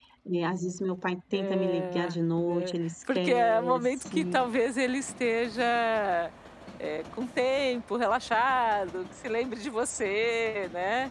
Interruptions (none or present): present